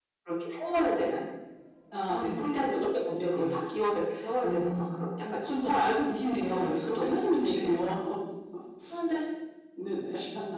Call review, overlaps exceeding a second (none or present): present